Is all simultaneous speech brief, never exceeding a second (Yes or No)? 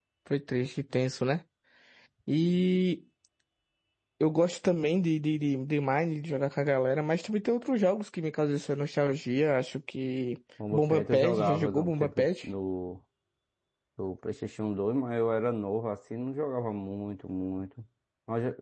No